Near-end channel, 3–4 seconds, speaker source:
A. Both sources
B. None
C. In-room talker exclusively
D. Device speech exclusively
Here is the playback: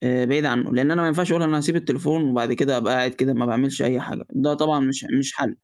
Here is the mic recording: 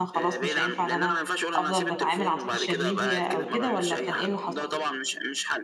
A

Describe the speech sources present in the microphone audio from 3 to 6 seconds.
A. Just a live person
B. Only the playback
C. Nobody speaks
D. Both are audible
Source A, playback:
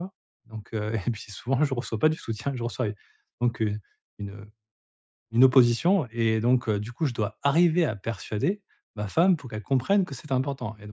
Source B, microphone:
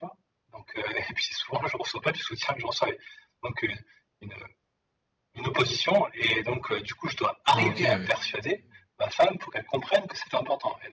B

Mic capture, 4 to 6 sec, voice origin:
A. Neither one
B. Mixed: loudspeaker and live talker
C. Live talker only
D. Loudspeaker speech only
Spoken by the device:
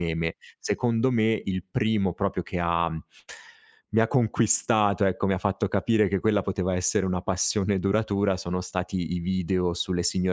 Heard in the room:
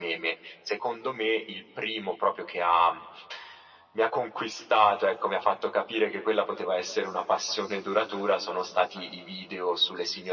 D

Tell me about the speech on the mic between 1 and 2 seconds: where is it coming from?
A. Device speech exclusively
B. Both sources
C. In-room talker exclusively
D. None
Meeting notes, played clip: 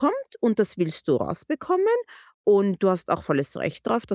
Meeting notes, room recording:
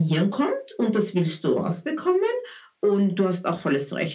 A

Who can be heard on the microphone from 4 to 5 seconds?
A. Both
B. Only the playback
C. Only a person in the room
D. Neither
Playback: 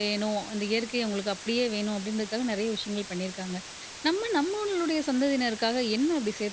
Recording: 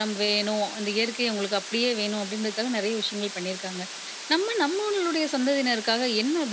B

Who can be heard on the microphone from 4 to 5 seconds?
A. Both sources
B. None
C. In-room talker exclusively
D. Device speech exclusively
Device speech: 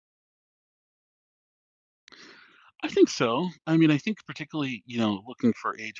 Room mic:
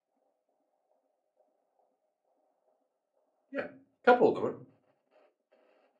C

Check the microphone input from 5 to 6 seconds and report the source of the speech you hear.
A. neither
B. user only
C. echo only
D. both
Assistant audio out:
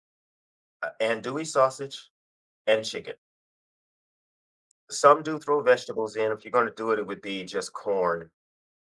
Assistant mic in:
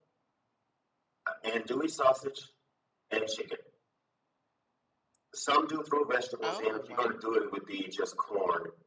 C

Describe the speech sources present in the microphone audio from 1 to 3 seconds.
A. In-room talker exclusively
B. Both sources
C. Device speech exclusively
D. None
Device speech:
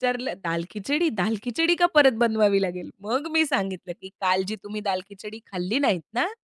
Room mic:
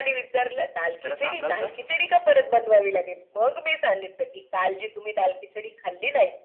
B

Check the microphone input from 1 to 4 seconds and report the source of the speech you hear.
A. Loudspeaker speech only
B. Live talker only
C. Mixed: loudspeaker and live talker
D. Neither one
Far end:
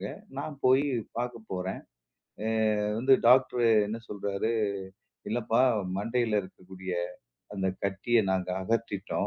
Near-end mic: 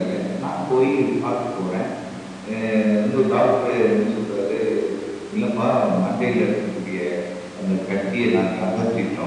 A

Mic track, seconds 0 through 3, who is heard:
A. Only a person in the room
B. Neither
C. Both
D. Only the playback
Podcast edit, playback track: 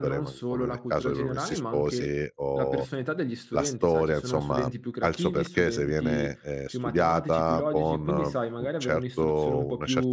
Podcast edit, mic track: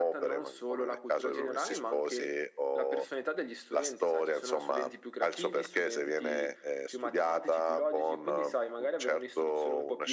D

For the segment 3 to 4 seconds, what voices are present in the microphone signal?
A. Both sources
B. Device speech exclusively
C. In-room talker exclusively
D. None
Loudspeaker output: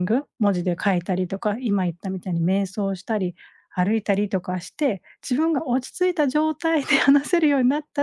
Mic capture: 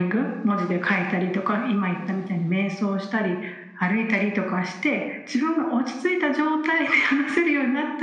B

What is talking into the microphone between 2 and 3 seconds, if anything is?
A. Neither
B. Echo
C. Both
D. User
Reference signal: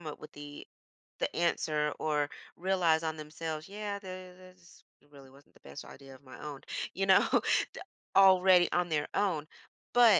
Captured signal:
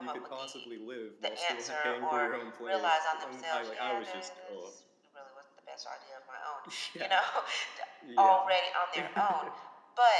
C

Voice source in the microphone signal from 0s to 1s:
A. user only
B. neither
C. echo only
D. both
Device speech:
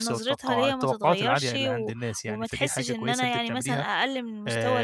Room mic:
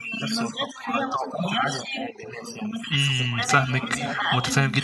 C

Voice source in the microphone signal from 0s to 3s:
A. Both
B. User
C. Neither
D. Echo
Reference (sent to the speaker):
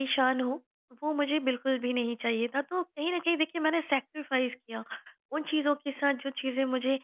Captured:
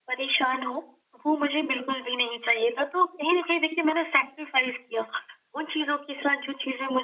D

